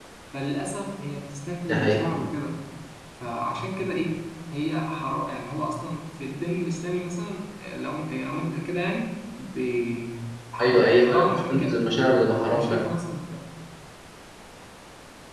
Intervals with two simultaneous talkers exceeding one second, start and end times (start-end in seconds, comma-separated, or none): 10.6-11.8